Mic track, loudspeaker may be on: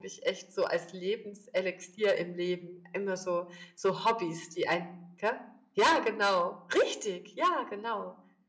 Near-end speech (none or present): present